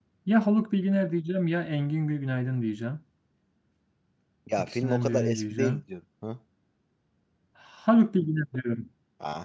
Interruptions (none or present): present